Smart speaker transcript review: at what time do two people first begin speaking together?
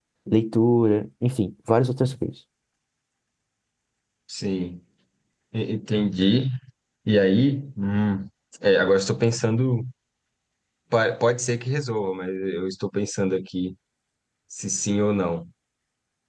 none

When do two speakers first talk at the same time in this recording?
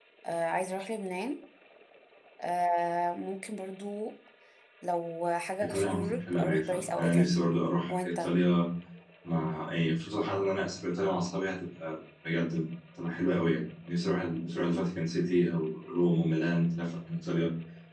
5.6 s

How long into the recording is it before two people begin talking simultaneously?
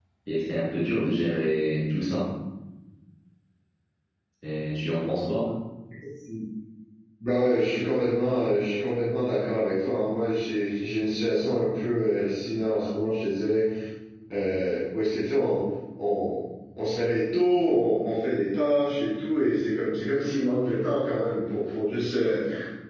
none

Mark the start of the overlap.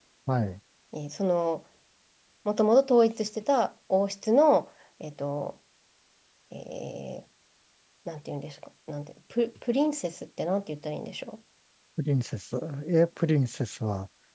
none

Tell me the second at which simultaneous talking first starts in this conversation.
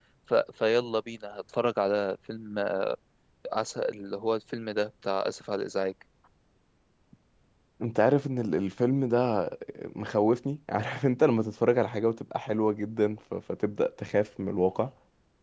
none

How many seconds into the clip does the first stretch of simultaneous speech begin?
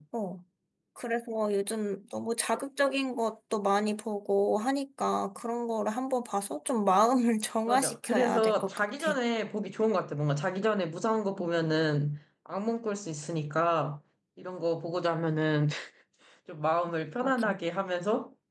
7.7 s

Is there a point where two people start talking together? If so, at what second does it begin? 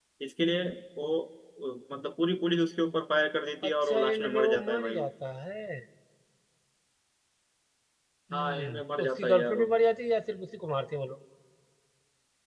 3.7 s

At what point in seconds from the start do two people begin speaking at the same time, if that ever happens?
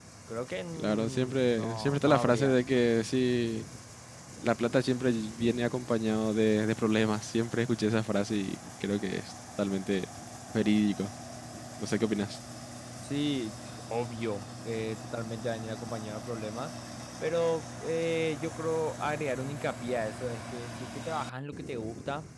0.8 s

